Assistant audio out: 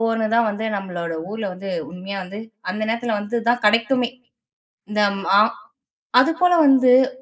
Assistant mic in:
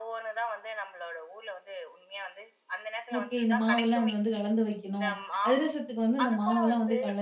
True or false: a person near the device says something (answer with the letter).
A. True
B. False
A